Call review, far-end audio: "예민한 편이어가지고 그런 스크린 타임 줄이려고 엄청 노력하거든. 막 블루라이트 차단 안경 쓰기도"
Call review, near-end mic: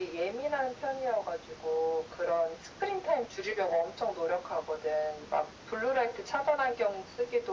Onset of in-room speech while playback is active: none

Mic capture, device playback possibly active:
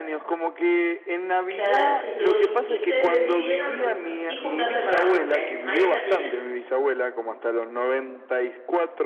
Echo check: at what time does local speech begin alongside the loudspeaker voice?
1 s

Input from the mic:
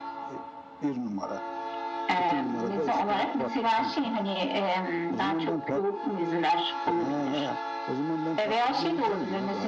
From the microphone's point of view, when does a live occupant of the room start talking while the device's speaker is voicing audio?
none

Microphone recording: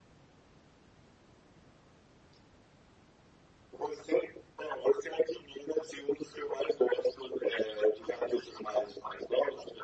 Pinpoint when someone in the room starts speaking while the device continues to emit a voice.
none

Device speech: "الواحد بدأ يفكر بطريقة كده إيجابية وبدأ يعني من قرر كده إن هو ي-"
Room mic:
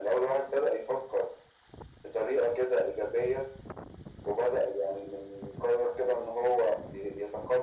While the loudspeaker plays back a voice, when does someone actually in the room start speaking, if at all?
none

